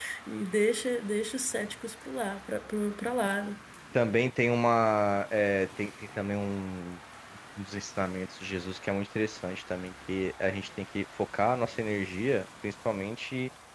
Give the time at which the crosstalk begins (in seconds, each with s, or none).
none